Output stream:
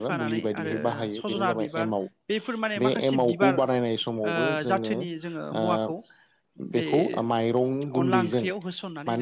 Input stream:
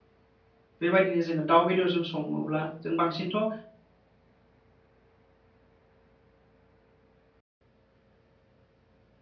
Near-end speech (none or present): present